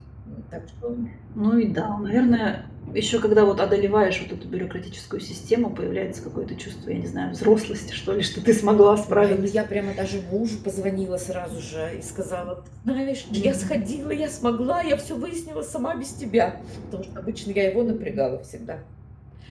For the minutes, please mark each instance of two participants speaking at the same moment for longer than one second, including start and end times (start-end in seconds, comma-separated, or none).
none